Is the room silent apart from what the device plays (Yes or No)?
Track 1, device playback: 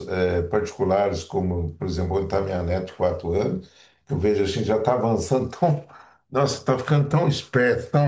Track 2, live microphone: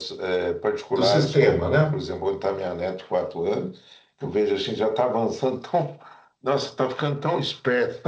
No